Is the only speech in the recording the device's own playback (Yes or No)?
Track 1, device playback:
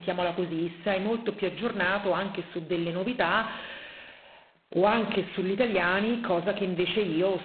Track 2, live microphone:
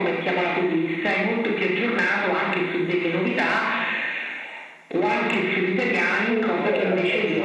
No